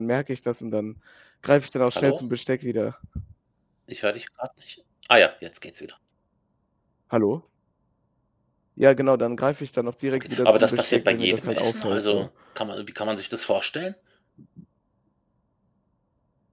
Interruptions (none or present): present